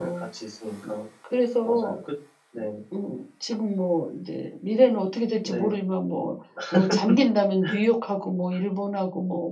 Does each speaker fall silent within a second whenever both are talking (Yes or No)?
Yes